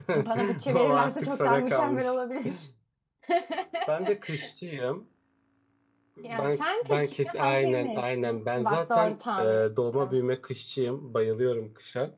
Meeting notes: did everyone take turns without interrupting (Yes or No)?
No